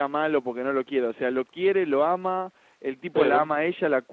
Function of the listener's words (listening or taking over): listening